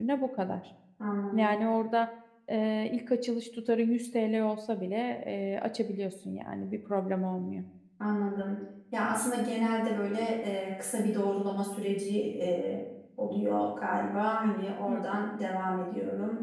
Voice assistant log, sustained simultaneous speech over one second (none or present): none